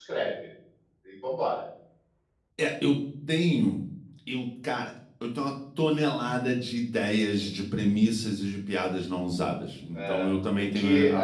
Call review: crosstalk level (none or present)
present